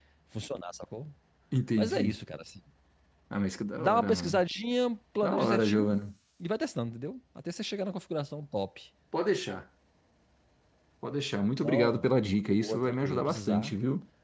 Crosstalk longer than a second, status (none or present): present